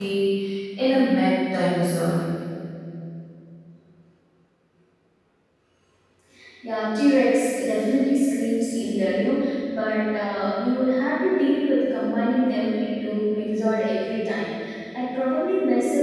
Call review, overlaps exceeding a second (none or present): none